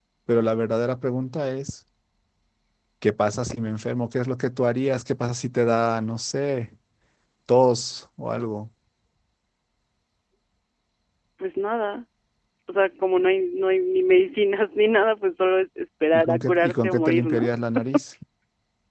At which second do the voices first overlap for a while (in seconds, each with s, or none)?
16.1 s